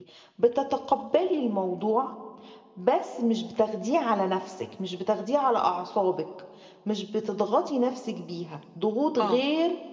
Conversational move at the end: listening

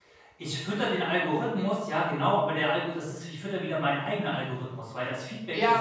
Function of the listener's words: taking over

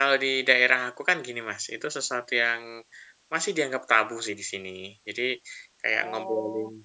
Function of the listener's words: listening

